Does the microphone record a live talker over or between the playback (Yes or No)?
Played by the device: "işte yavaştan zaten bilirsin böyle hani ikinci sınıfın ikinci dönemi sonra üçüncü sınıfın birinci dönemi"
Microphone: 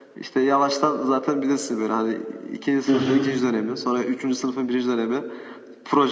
Yes